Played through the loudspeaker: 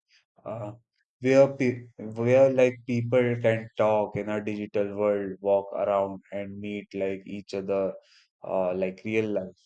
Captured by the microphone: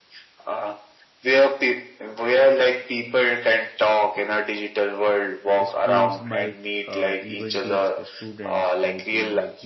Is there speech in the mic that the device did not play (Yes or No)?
Yes